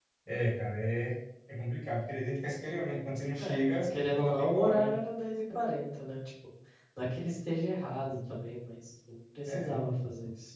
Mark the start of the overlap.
3.4 s

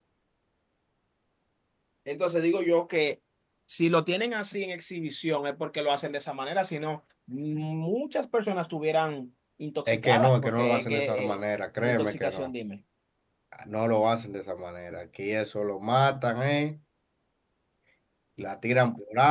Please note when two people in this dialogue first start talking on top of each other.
9.9 s

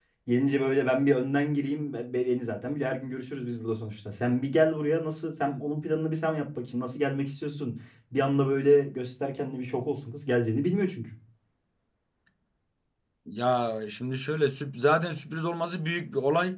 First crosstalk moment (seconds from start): none

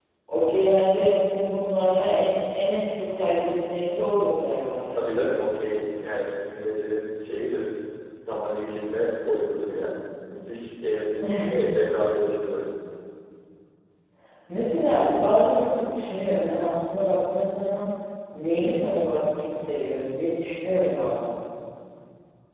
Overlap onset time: none

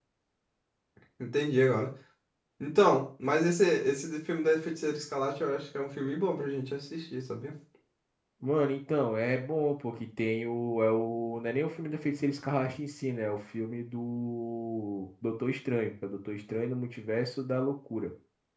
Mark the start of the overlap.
none

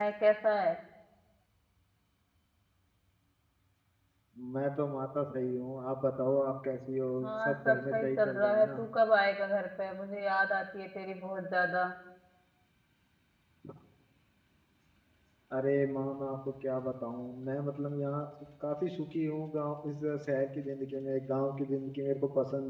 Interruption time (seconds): 7.5 s

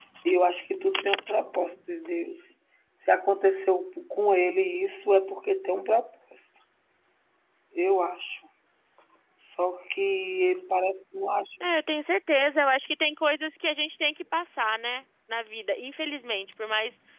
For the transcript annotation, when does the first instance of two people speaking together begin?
none

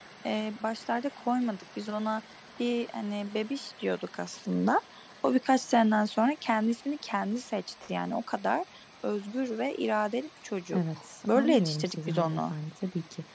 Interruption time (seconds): 10.7 s

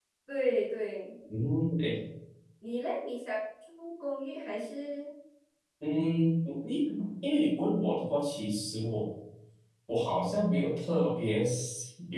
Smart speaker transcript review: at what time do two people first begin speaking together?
none

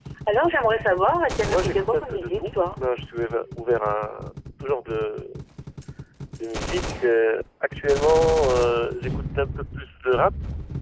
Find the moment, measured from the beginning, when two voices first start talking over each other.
1.5 s

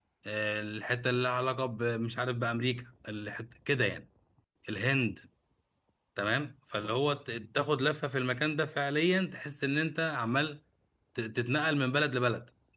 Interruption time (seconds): none

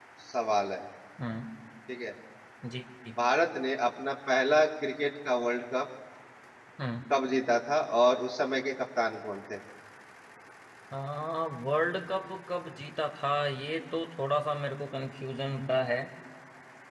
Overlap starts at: none

